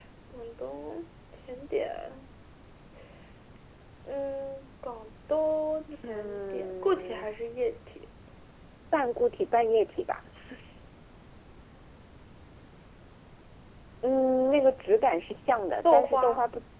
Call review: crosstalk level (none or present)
present